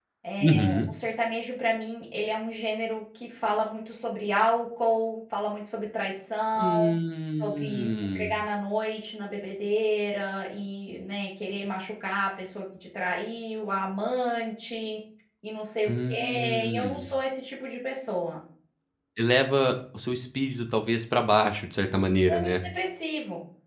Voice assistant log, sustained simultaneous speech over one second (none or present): present